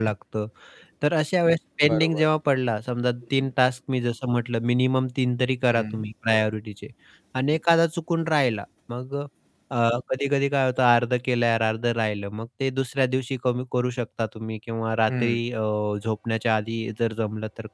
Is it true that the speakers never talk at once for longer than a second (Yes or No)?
Yes